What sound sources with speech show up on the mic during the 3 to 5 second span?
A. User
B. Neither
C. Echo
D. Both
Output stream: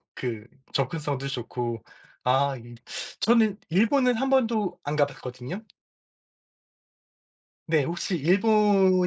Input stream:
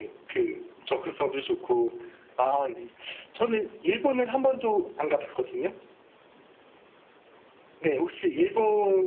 C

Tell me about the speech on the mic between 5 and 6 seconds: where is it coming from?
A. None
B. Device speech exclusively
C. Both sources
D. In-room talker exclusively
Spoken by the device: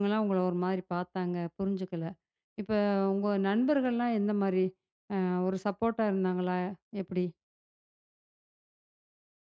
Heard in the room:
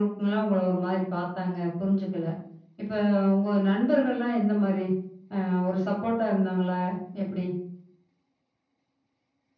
B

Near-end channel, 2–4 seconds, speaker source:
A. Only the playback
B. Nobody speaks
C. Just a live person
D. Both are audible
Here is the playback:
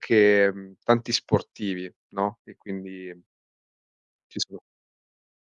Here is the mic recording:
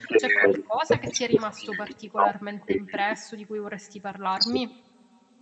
D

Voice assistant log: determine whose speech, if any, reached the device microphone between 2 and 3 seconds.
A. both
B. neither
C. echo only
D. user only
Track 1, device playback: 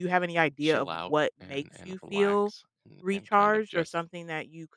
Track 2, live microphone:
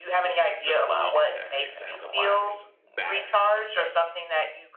A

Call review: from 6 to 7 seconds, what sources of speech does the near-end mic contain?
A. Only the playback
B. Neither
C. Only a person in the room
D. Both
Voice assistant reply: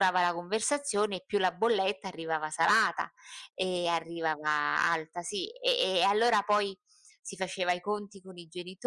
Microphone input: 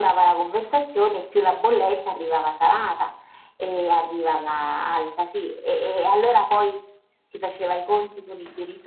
A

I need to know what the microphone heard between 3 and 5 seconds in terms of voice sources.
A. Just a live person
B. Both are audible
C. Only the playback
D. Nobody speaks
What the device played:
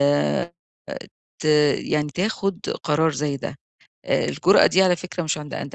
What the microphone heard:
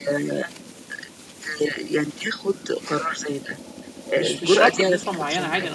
B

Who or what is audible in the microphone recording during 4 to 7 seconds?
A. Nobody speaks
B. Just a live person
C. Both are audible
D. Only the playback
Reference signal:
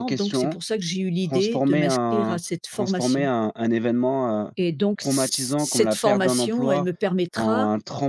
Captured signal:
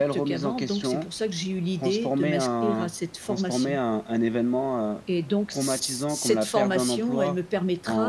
D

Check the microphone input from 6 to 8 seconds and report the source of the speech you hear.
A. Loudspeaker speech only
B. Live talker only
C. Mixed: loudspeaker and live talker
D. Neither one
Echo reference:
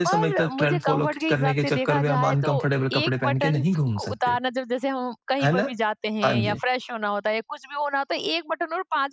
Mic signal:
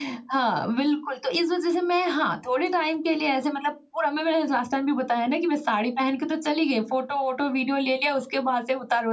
B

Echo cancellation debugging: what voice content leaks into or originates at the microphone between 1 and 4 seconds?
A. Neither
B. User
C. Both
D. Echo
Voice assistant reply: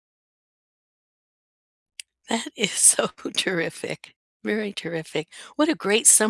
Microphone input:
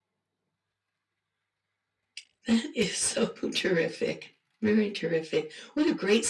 D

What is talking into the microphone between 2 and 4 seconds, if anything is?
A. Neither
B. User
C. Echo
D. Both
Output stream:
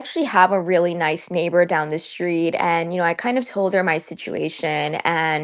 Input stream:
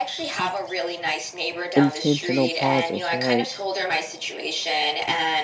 D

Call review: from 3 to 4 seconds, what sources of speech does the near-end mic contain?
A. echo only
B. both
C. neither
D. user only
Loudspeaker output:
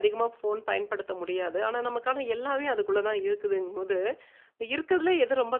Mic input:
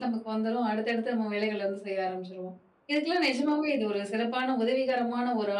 D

